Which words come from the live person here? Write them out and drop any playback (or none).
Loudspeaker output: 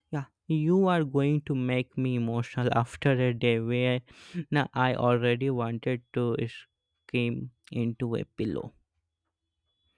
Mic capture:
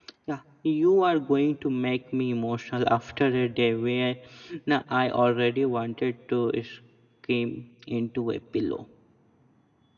none